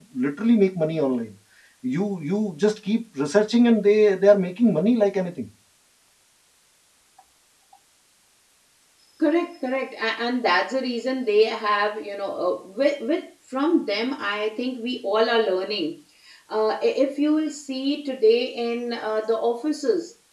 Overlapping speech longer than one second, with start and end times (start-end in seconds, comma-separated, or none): none